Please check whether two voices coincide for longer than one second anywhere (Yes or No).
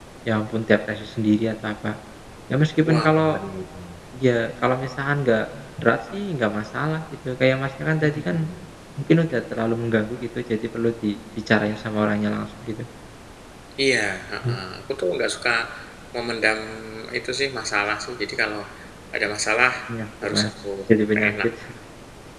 No